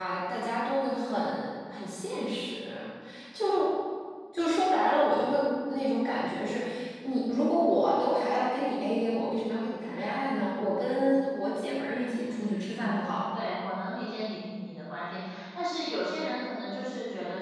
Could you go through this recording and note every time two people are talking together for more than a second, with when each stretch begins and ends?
11.9-13.4

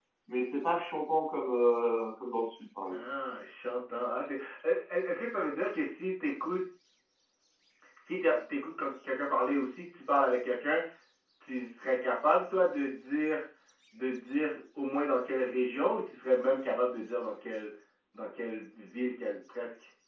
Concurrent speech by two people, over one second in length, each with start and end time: none

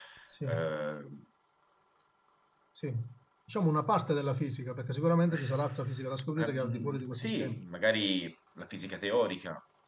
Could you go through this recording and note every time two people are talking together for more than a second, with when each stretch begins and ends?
6.4-7.6

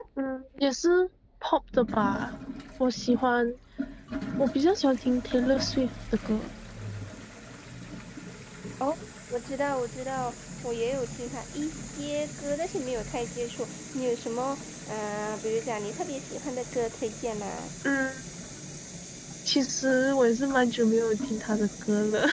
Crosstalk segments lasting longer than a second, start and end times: none

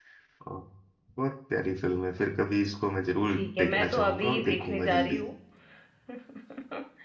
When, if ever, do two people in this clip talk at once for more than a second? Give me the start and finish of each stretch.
3.3-5.2

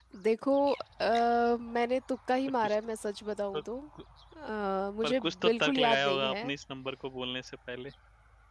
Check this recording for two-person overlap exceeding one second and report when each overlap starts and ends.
5.0-6.4

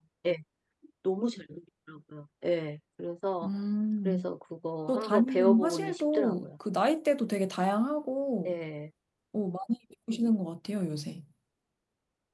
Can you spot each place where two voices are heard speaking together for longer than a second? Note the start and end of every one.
4.9-6.5

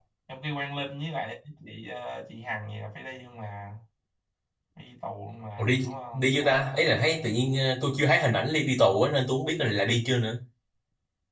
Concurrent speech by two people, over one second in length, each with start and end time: 5.6-6.9

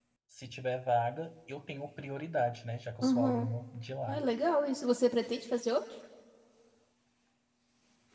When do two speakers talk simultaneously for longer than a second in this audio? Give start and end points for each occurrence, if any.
none

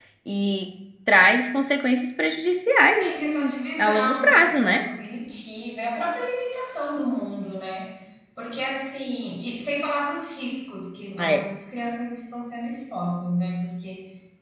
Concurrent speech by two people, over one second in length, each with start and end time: 3.0-4.8

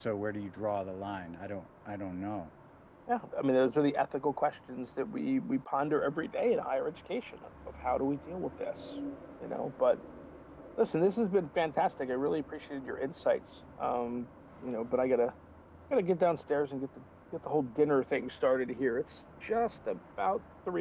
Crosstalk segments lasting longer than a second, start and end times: none

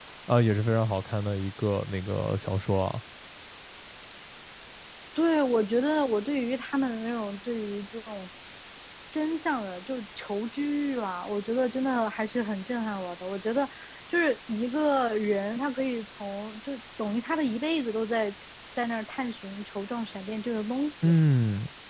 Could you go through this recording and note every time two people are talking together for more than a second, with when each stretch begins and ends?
none

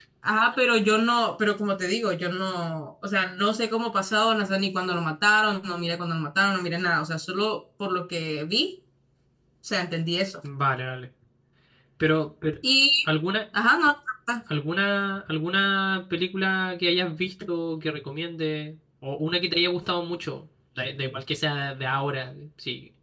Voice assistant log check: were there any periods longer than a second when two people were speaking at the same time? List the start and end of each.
none

